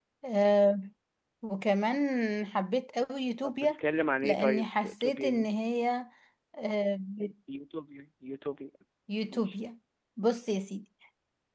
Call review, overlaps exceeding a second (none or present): present